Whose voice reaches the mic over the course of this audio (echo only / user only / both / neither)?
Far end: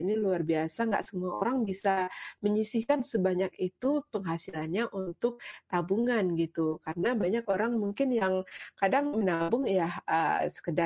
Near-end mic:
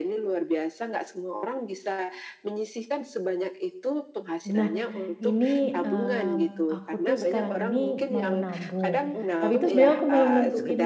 both